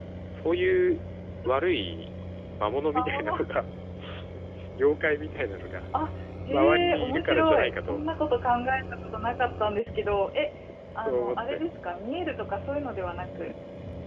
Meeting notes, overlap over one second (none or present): present